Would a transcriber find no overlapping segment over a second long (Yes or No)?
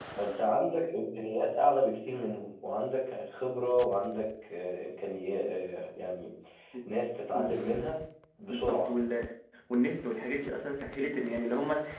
Yes